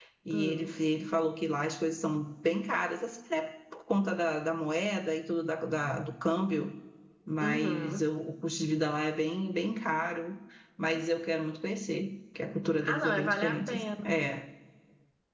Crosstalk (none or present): present